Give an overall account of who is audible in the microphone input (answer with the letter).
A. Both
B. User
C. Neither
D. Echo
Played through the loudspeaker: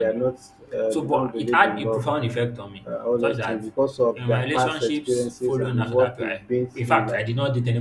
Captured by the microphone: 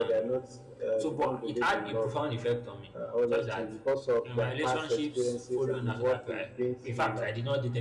D